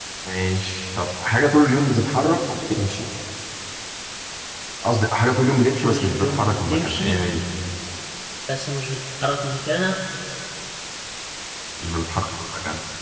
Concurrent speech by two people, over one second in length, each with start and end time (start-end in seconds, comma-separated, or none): 5.8-7.2